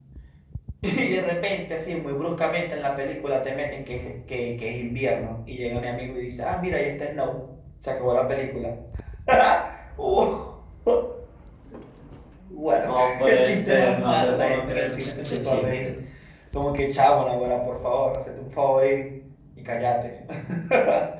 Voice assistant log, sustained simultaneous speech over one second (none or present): present